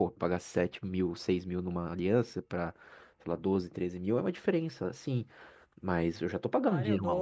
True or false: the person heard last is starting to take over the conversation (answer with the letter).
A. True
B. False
A